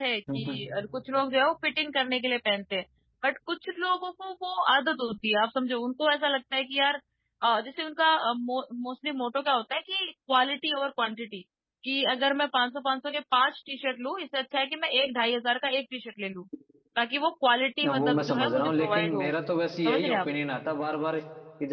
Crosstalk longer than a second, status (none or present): present